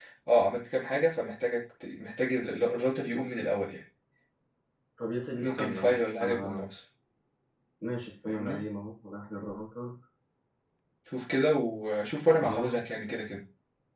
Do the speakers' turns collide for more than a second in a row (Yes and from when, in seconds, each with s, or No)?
Yes, from 5.4 s